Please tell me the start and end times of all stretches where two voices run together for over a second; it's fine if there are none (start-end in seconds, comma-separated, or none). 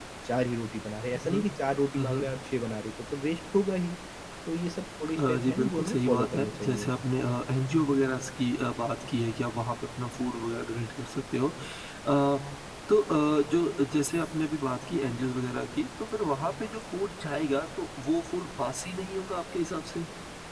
5.2-6.9